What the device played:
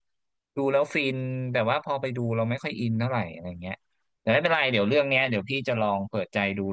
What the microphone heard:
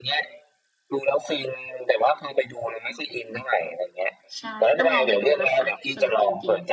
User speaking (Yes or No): Yes